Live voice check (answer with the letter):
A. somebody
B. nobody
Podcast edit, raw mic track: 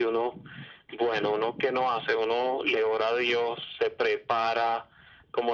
B